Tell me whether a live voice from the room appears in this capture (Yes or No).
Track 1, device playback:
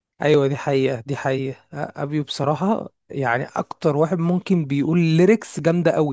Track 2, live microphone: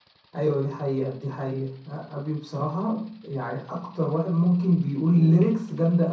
Yes